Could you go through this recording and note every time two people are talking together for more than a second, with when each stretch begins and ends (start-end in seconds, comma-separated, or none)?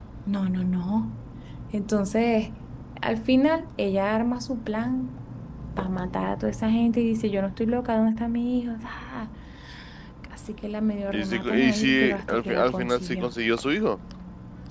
11.1-13.3